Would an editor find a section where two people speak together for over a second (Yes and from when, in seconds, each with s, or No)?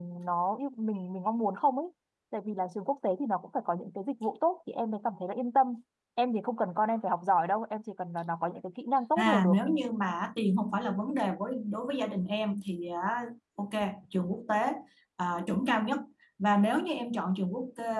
No